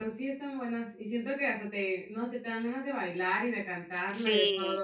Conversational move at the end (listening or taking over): taking over